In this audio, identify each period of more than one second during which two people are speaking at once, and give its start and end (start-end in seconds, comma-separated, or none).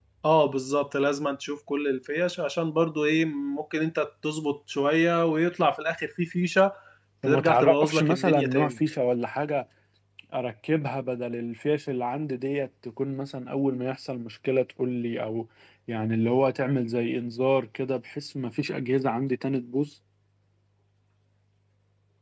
7.2-8.8